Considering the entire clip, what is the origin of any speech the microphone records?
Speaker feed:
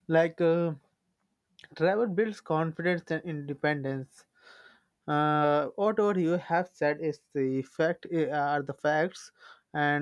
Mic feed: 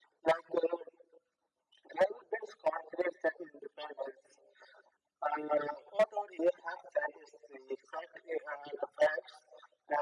echo only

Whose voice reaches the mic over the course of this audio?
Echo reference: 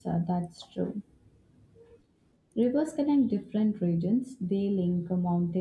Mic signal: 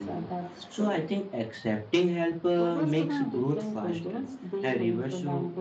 both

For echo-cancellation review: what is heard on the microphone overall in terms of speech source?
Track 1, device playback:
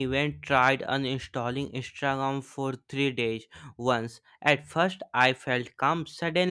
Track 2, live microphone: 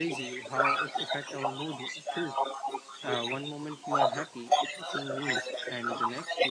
both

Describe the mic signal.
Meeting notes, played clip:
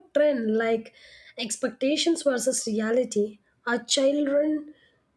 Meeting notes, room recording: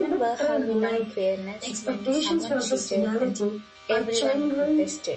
both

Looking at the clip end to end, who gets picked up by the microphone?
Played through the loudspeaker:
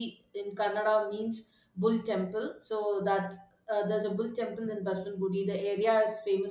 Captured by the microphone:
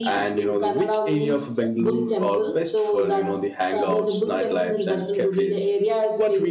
both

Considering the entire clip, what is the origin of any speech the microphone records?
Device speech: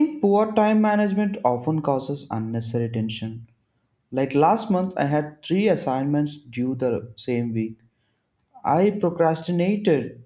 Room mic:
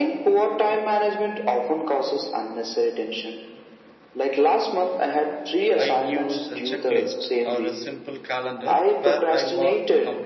both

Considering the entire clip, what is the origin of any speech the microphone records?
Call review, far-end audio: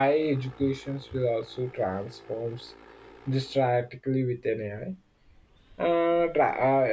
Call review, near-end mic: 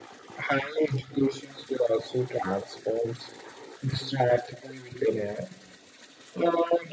echo only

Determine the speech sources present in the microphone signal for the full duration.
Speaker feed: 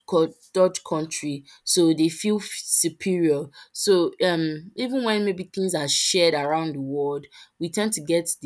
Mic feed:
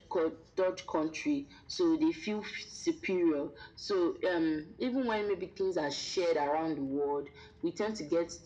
echo only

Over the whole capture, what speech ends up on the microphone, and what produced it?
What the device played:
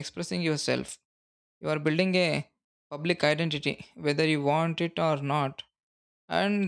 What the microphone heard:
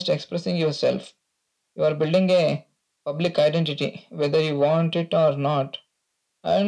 echo only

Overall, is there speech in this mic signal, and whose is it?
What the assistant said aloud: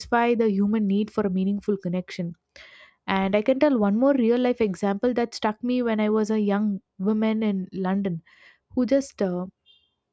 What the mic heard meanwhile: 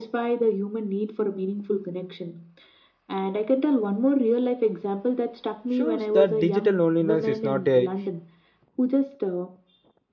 both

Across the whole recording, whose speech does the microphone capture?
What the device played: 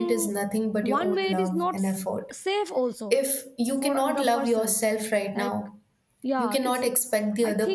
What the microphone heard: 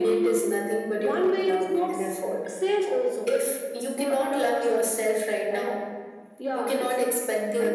echo only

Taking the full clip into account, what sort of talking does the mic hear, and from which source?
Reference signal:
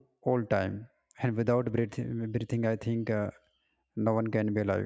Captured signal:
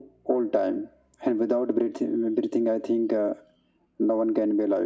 echo only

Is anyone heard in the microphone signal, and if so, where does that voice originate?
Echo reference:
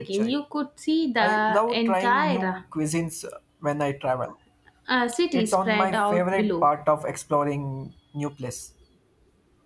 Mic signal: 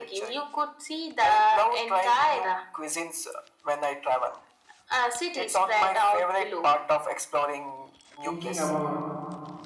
both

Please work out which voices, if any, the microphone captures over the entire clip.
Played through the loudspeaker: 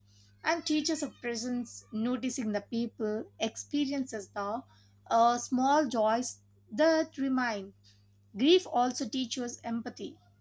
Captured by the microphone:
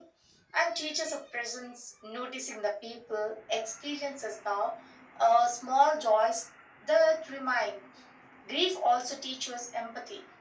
echo only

